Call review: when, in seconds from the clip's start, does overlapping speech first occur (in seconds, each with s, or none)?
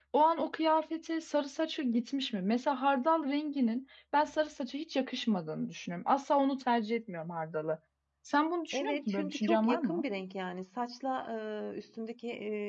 8.7 s